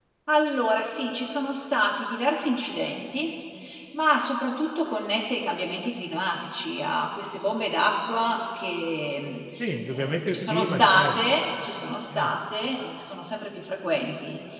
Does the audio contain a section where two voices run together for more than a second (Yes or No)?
Yes